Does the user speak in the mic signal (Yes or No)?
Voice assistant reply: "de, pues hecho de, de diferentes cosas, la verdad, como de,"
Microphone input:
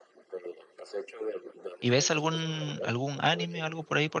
Yes